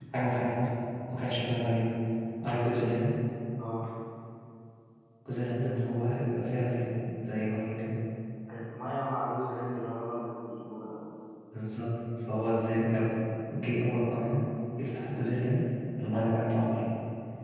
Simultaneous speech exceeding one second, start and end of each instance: none

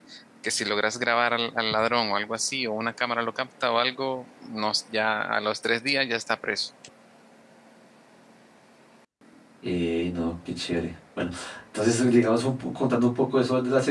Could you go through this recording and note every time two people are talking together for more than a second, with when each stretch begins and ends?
none

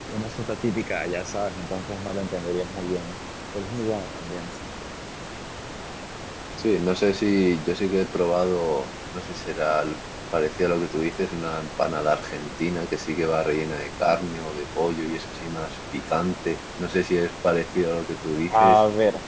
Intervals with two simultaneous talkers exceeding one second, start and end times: none

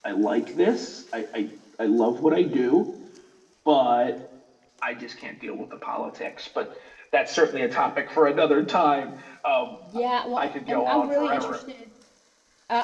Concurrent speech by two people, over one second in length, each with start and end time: 10.4-11.6

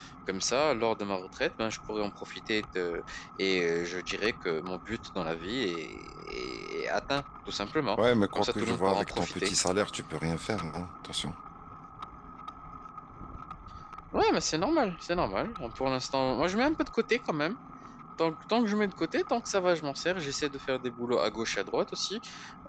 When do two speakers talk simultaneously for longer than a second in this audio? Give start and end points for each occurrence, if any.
8.1-9.5

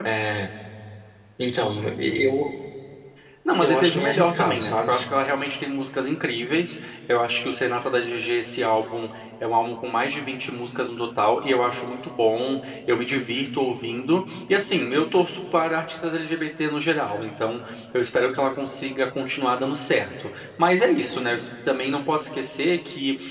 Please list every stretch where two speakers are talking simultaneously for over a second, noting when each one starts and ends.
3.6-5.0

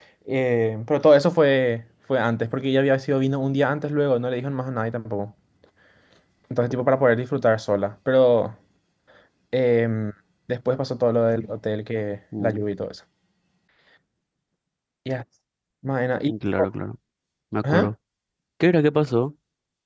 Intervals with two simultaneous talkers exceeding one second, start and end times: none

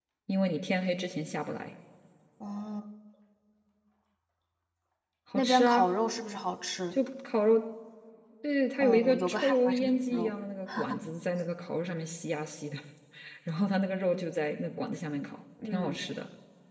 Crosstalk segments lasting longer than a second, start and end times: 8.8-10.3

